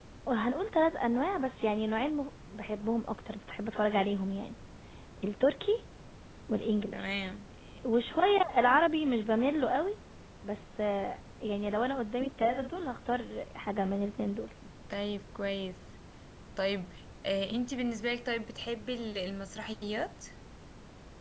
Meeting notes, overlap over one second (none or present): none